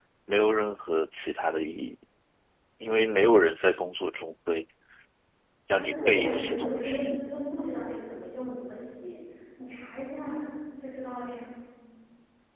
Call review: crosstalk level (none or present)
present